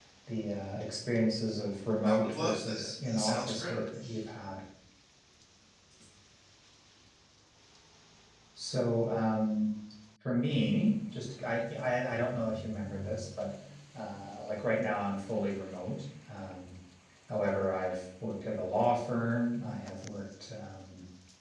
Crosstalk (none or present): present